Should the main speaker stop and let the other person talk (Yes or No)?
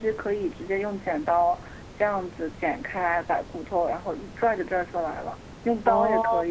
No